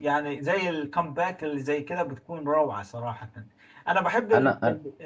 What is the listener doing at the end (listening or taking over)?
listening